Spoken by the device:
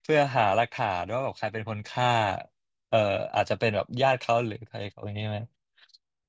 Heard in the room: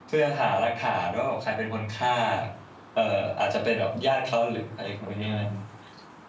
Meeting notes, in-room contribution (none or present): present